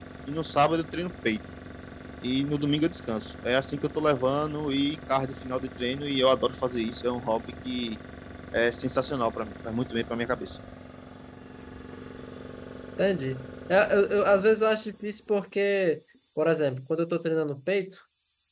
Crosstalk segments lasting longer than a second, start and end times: none

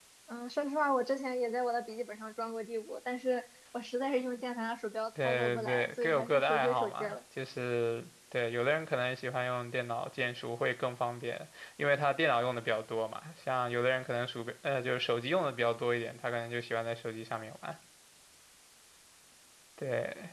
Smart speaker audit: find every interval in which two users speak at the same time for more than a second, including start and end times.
5.2-7.2

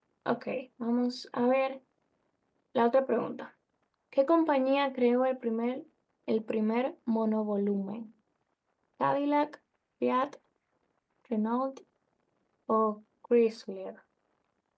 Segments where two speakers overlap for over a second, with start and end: none

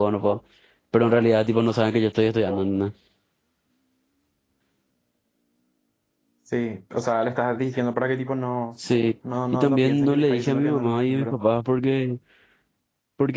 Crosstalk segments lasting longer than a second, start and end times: 9.5-11.4

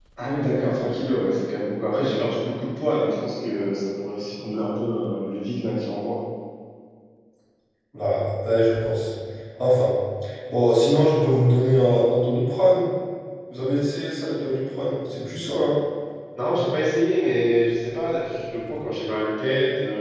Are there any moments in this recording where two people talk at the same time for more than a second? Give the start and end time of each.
none

